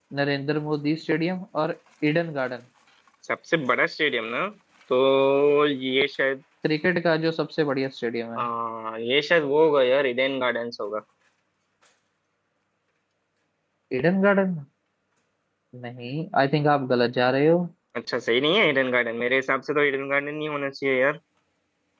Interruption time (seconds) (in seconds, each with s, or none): none